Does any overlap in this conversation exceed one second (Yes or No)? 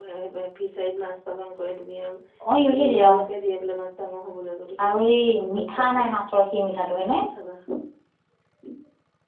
Yes